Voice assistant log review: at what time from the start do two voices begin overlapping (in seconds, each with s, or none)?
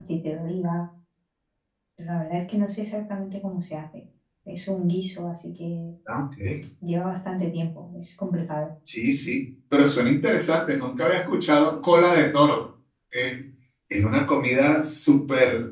none